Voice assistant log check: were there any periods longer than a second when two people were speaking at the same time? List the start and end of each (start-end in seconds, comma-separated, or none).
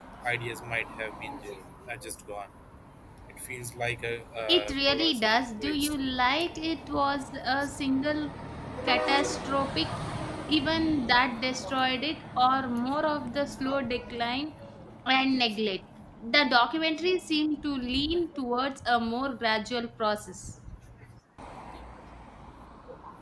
4.5-6.0